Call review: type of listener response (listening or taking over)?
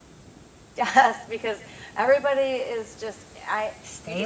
taking over